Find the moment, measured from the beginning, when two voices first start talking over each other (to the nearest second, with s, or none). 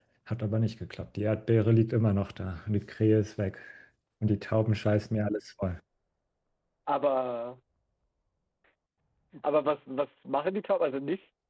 none